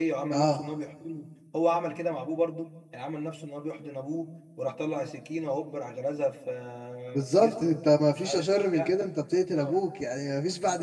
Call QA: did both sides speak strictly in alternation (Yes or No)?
No